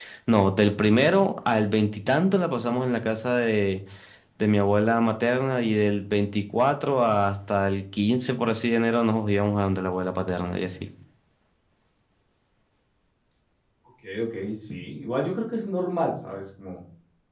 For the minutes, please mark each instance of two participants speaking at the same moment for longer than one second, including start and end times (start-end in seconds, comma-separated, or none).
none